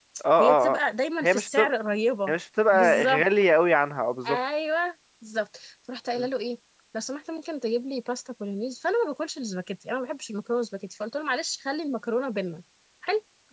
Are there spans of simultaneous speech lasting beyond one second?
No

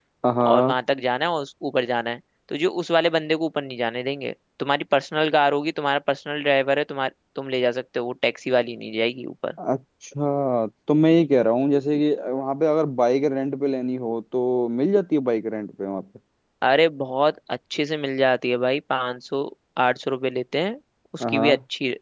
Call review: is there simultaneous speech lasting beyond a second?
No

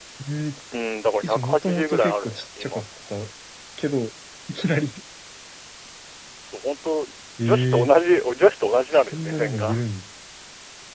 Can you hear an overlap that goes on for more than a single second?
Yes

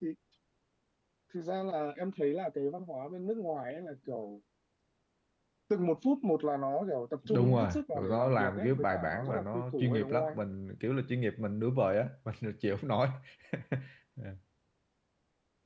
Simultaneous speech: Yes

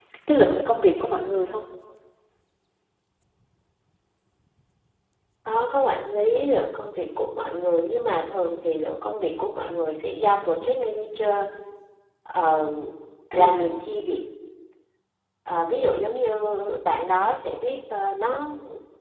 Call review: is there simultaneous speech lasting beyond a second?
No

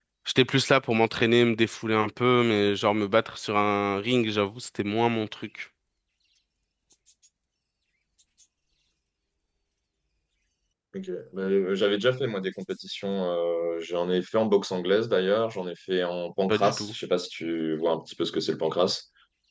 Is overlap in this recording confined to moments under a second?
Yes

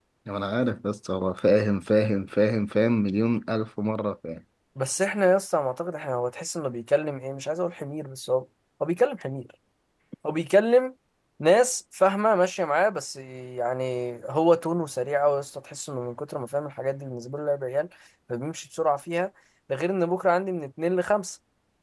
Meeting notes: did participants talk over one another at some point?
No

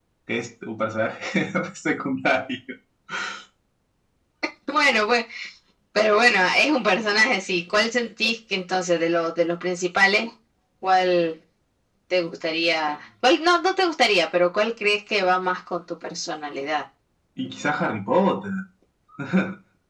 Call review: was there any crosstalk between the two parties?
No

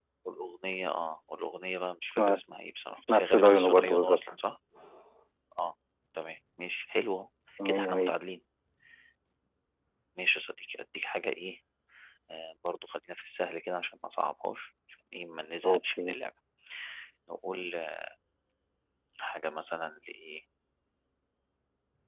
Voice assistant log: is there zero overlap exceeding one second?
No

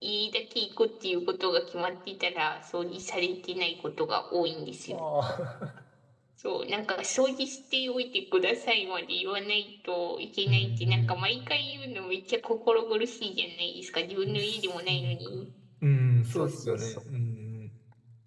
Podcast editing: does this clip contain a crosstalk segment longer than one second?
Yes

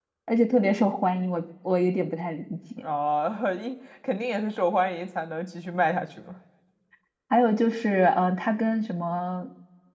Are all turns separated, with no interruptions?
Yes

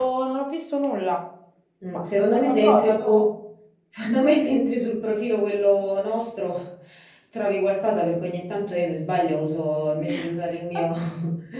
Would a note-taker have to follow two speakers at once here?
Yes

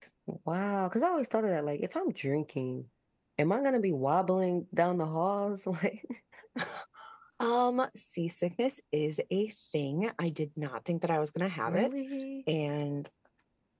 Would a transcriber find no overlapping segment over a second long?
Yes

